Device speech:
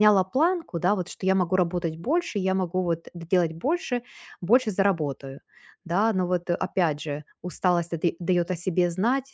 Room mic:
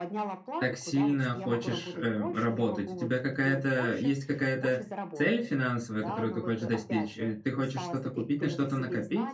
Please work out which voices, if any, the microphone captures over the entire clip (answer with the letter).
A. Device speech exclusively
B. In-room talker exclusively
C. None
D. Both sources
D